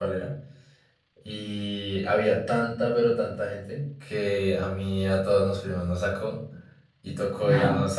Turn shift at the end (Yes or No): No